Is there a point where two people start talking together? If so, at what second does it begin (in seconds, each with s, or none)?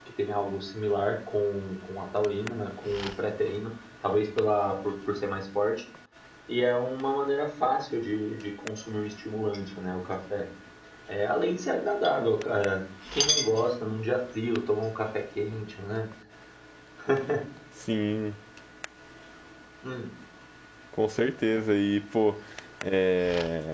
none